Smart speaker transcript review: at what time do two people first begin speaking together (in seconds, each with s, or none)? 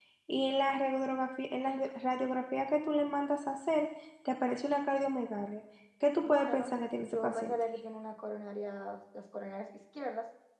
6.2 s